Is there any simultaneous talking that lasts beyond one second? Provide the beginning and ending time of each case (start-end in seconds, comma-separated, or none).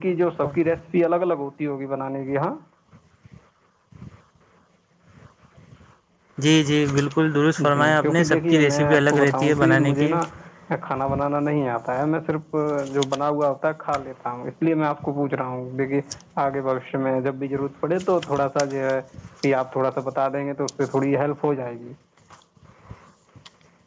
7.7-10.1